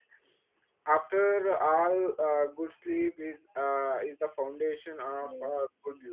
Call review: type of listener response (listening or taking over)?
listening